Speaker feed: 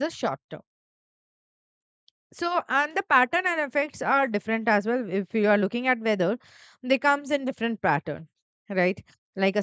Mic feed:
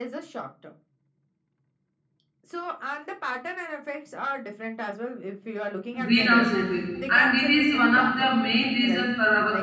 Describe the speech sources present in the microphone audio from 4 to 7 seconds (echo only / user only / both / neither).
both